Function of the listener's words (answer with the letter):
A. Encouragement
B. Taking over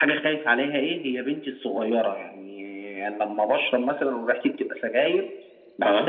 A